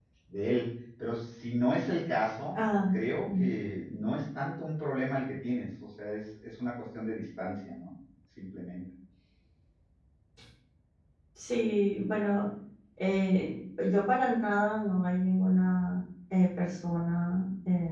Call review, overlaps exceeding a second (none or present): none